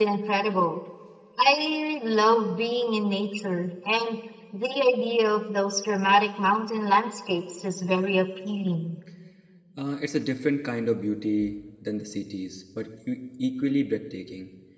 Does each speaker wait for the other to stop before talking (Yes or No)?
Yes